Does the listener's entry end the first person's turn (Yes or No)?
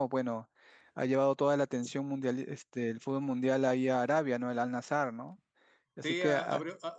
Yes